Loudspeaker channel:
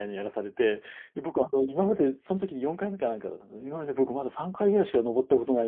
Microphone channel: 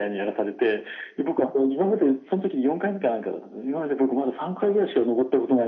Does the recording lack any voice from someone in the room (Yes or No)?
Yes